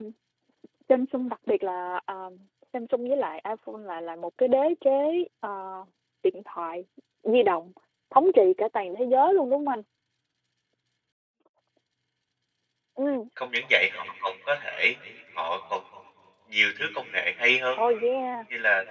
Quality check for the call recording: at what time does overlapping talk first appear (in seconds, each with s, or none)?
none